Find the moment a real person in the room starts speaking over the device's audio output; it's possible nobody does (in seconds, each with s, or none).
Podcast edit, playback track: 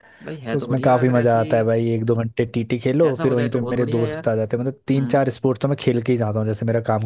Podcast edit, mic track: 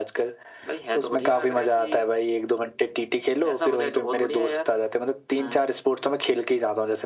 none